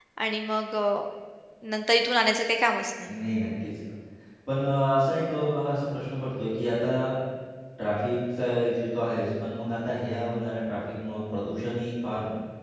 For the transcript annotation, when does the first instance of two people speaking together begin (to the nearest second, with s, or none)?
none